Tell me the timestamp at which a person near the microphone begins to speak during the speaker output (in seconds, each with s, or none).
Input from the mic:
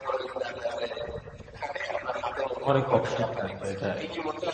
2.7 s